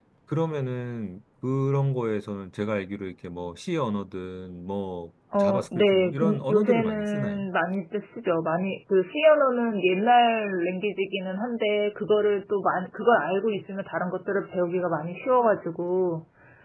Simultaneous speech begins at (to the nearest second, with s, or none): 5 s